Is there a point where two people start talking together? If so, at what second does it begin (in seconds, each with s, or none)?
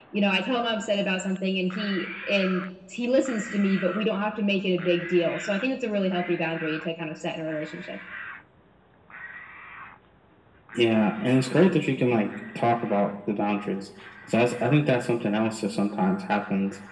none